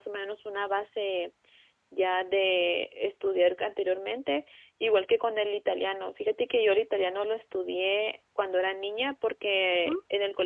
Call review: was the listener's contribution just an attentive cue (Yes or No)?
Yes